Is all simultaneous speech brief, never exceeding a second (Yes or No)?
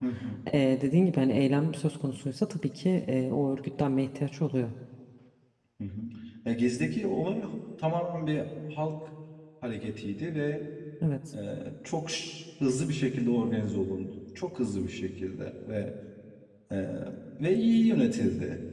Yes